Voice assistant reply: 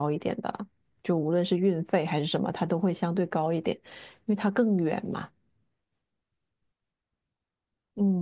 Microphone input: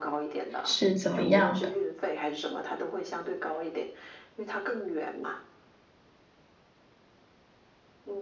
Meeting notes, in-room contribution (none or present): present